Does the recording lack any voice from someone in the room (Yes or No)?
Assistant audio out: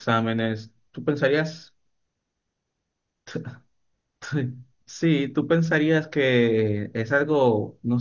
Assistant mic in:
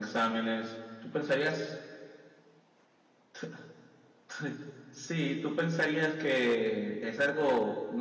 Yes